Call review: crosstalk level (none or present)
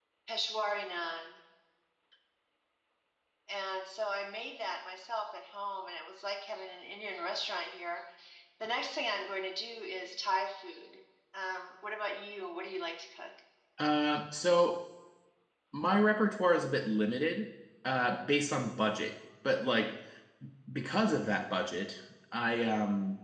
none